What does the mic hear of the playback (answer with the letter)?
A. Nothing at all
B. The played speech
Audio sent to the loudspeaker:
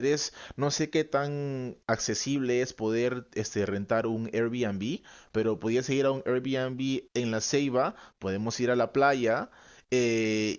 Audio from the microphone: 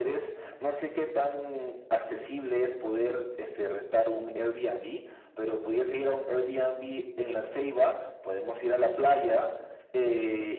B